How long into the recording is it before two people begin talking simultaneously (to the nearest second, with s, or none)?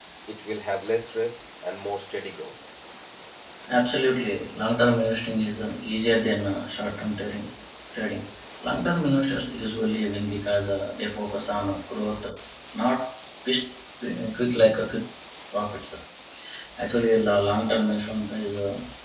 none